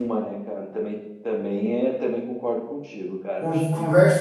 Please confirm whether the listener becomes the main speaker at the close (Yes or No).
Yes